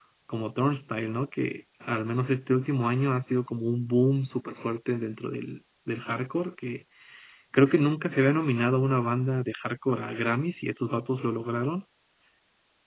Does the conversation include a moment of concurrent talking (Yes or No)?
No